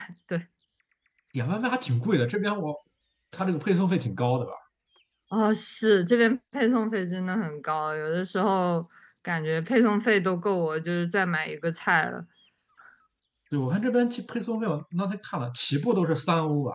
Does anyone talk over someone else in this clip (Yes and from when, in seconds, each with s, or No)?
No